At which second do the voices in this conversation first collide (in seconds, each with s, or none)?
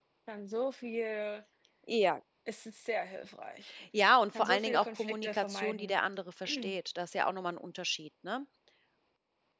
4.3 s